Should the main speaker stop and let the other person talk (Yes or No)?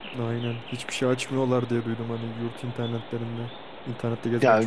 Yes